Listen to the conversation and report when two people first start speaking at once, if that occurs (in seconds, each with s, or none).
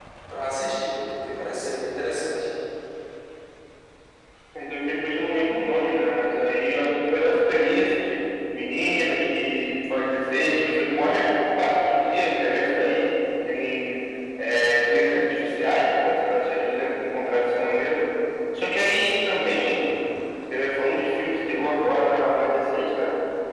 none